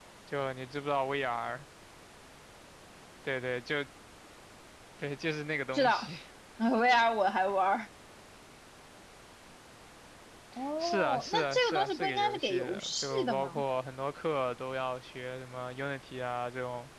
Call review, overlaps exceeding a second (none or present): present